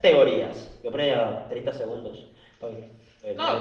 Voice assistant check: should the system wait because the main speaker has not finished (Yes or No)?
No